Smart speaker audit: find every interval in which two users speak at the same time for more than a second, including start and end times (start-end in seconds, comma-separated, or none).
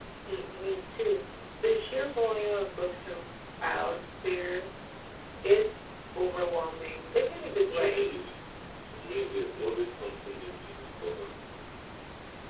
none